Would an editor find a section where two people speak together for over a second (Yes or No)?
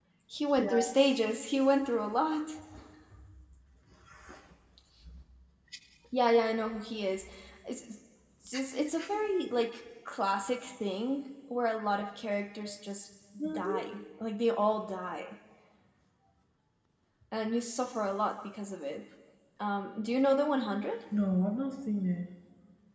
No